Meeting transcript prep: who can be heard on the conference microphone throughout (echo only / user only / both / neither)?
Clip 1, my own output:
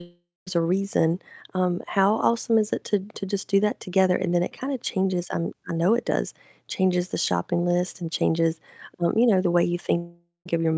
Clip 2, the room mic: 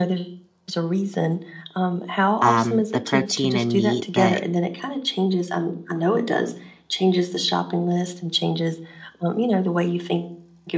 both